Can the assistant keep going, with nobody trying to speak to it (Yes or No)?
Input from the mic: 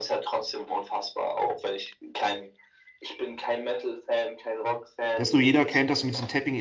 No